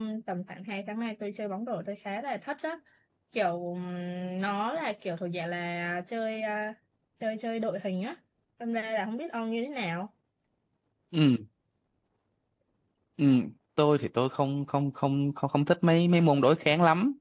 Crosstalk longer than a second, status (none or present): none